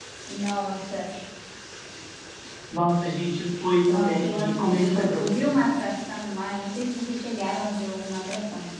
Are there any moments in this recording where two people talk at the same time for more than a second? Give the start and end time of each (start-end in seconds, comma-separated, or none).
3.9-5.5